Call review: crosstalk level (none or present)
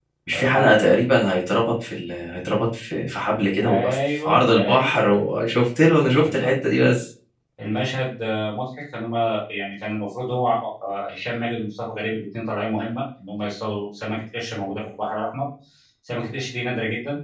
present